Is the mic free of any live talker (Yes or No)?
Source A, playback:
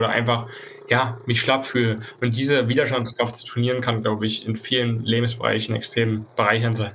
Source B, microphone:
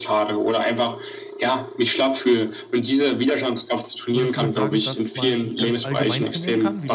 No